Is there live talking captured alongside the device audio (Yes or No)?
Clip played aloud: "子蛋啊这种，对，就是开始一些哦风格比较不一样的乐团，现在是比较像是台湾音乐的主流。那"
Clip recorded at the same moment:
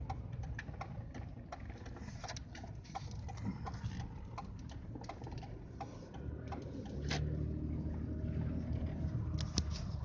No